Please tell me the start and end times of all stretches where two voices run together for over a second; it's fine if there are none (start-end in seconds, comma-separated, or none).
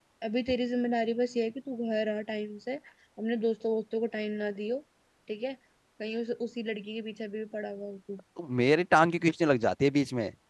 none